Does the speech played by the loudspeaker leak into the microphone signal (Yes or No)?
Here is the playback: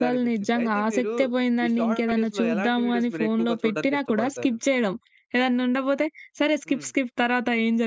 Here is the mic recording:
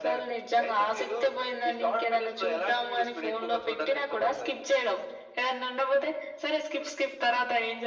Yes